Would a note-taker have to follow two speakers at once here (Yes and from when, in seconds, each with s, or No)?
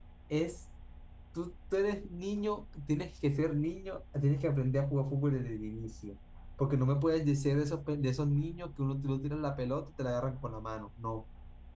No